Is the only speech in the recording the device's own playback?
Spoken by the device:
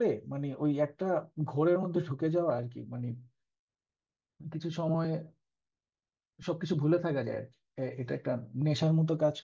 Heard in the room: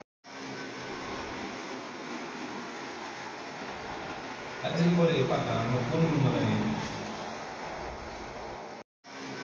No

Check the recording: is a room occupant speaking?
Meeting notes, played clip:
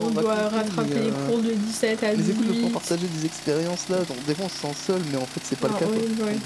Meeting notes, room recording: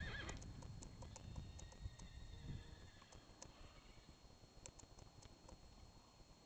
No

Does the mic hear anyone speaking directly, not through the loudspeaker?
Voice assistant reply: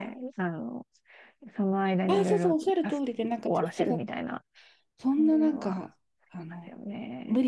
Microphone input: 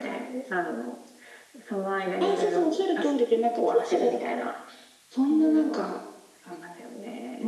No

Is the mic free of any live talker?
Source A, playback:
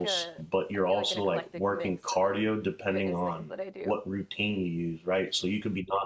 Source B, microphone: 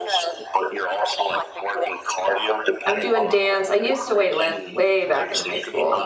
No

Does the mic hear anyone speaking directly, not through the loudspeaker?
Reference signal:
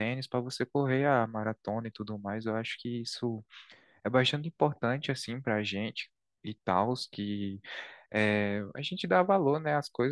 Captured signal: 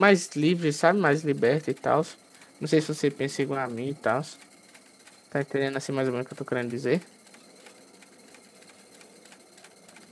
Yes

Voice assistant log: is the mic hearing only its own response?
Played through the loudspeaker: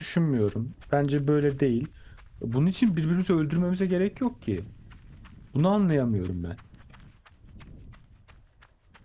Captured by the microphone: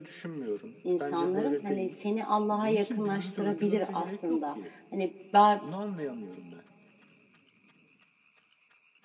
No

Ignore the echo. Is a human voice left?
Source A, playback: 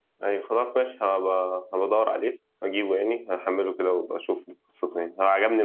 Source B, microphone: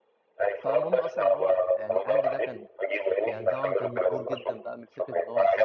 Yes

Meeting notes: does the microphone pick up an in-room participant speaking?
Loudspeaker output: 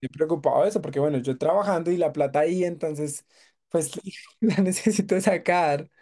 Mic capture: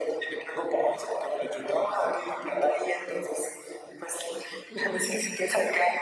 No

